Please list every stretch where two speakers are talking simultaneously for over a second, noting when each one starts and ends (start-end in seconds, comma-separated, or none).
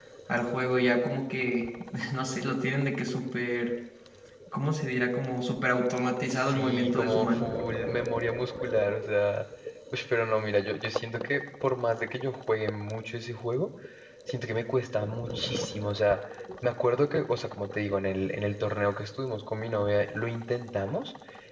6.3-7.5